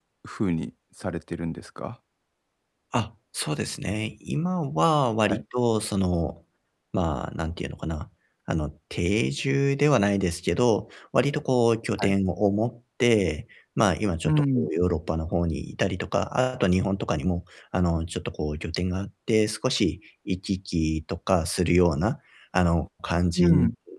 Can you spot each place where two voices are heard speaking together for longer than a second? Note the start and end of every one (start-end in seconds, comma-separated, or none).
none